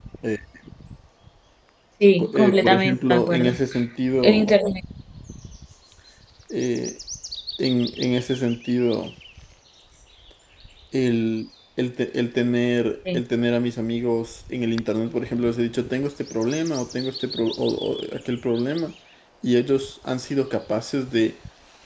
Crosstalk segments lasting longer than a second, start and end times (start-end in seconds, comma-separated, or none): 2.2-3.5